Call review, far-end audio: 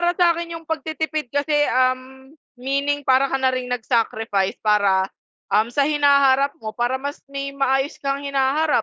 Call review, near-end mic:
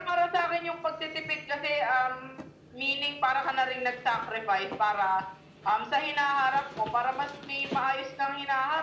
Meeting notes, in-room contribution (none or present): none